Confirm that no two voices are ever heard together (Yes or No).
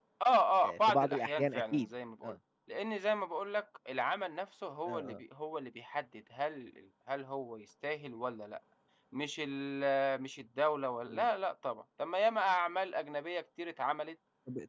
No